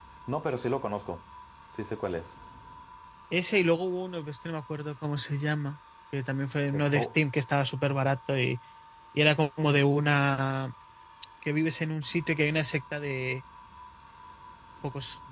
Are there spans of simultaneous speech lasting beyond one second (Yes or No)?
No